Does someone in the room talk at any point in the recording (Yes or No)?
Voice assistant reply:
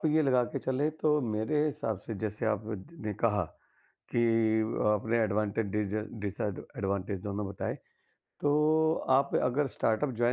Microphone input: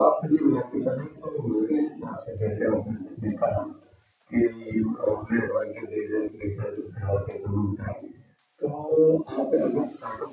No